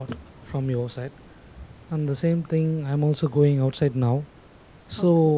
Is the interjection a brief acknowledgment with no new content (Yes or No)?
Yes